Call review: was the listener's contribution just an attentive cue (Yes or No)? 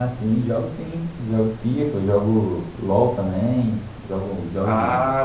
No